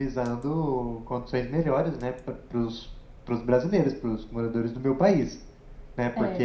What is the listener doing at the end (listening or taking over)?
taking over